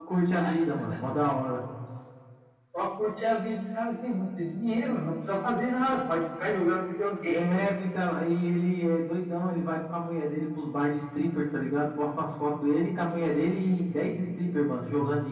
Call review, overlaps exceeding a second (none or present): none